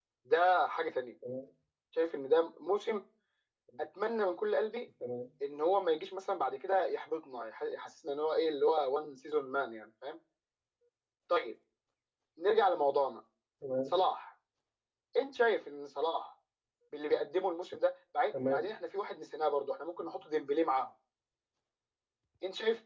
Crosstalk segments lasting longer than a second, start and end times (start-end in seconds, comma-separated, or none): none